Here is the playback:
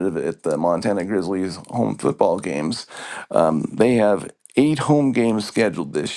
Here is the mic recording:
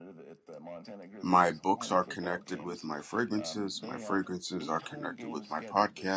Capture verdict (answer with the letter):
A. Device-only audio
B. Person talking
B